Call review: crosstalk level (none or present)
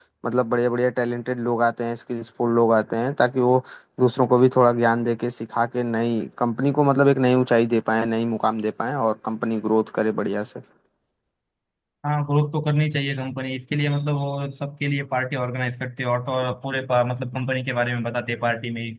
none